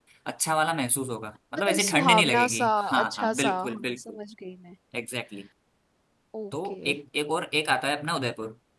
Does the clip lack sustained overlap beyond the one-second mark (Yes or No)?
No